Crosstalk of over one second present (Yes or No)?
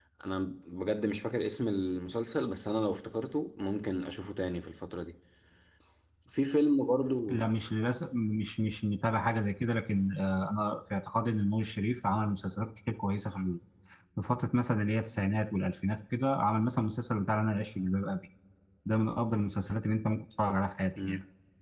No